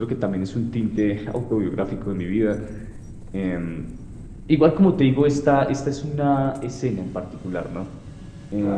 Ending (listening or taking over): taking over